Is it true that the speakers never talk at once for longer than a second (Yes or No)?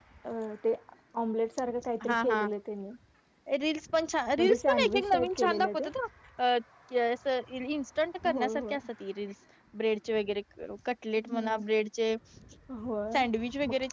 No